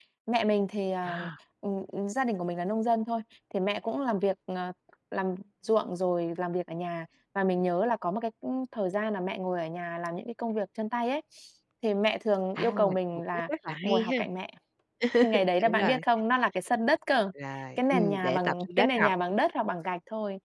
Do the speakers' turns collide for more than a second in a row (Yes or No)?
Yes